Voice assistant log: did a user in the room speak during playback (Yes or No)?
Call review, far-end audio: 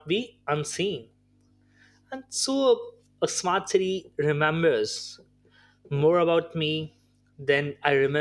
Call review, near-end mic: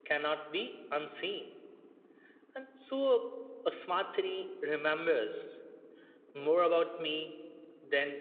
No